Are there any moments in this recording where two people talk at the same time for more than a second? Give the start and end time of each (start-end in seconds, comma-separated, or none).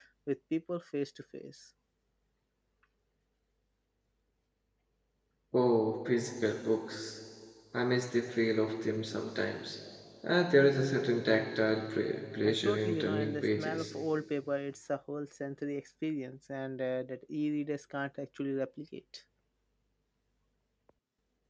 12.4-13.9